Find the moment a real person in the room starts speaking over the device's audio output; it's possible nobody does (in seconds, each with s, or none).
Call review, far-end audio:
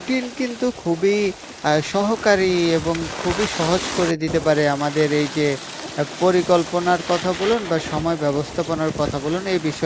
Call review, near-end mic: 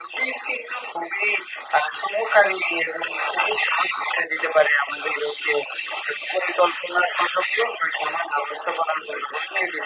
none